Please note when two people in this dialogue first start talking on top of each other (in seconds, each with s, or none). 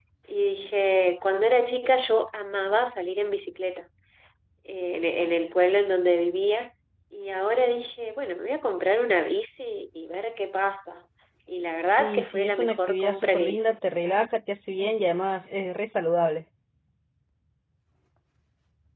11.9 s